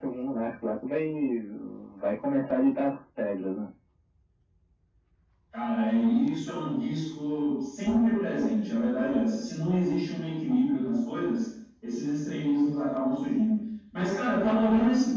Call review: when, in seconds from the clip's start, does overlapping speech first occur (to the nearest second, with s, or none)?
none